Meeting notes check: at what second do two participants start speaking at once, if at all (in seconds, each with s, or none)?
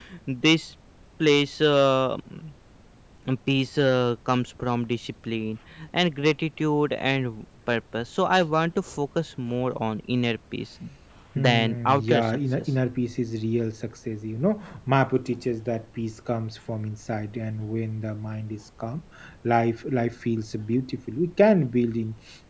11.3 s